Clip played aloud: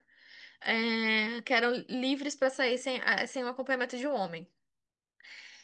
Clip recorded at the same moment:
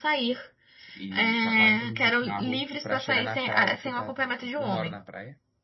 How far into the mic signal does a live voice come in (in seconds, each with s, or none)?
0.9 s